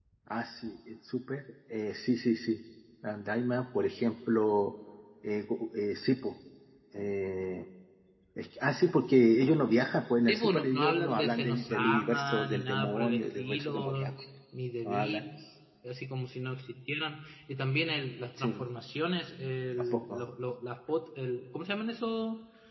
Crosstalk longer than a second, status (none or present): present